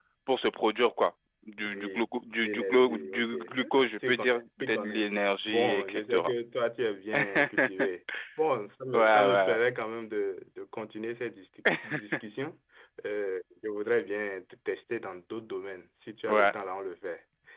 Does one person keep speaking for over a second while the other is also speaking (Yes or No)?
Yes